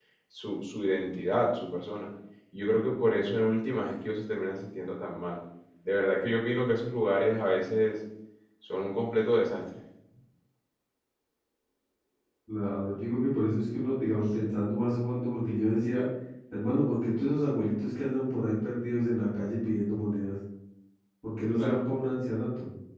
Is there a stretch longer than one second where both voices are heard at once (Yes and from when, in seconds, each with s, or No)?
No